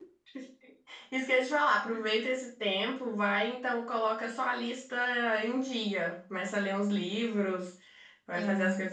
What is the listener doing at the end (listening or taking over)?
listening